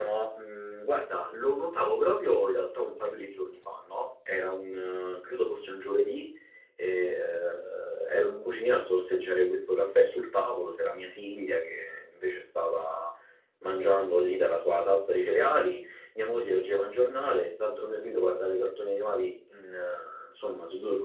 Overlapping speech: No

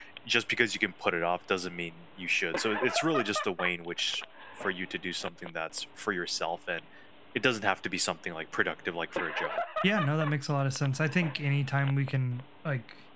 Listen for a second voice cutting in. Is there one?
No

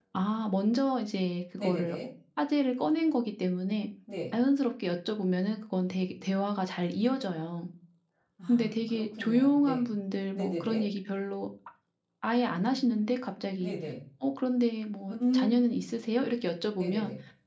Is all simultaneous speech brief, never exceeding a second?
No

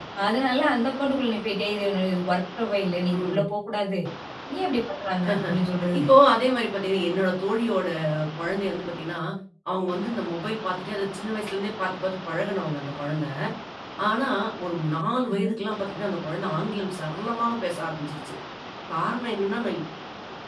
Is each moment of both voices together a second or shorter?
Yes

